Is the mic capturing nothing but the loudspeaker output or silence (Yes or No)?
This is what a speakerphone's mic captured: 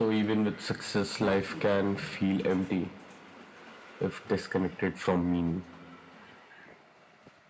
No